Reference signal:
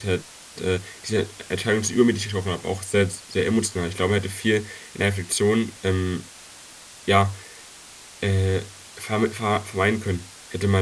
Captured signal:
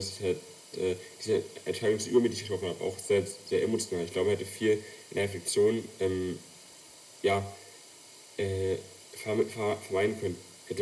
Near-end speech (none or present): none